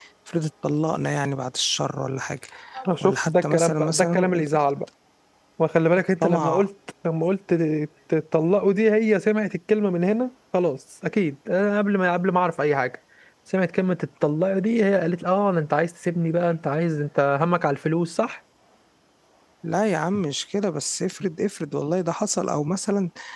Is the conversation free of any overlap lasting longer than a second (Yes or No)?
No